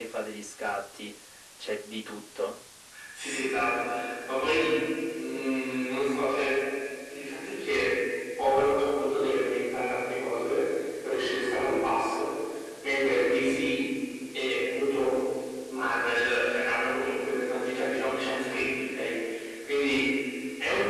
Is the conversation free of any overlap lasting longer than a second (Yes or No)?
Yes